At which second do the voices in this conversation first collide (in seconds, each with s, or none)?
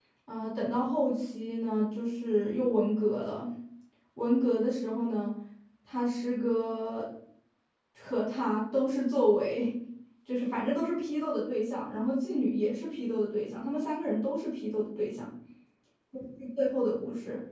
none